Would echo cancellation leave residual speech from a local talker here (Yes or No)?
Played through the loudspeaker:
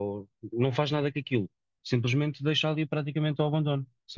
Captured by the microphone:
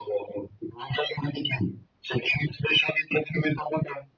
No